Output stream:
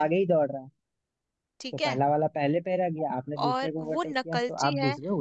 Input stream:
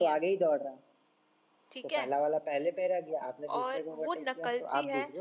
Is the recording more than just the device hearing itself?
No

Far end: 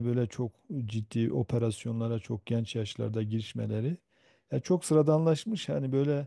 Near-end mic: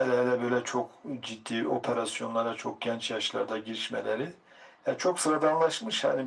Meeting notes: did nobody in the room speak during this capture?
Yes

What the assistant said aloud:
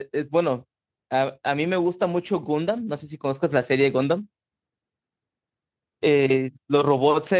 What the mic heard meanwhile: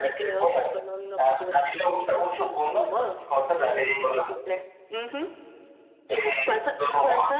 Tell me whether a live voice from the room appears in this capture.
Yes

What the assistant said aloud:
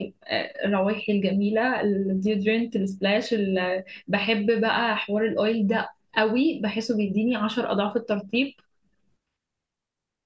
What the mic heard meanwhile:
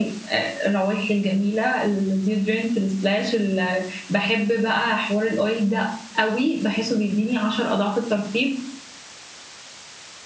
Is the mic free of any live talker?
Yes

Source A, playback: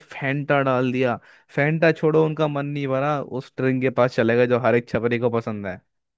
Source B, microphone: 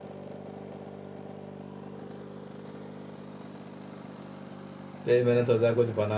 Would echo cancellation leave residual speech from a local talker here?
Yes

